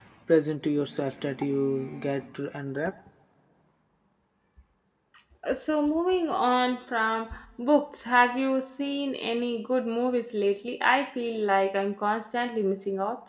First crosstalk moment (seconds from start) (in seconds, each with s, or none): none